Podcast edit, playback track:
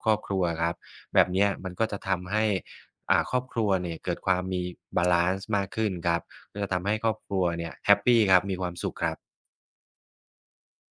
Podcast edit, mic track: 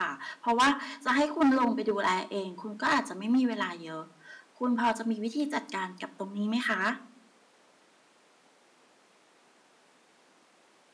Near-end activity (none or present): present